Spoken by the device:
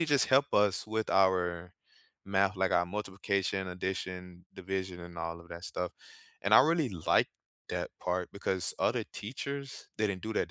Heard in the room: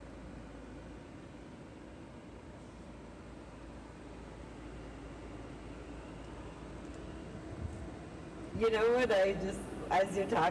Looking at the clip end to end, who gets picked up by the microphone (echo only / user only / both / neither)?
user only